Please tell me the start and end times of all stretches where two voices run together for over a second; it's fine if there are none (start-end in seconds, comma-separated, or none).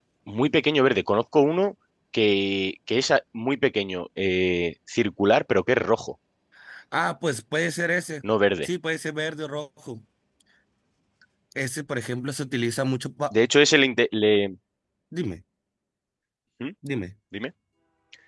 none